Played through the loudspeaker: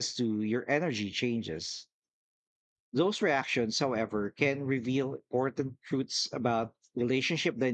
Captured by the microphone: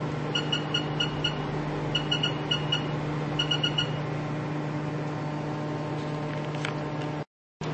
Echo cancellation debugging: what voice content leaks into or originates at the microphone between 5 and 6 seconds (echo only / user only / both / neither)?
neither